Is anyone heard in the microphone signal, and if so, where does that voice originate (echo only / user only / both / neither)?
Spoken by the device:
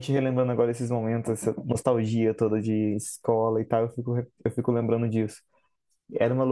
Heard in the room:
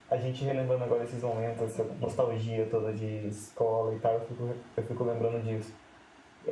echo only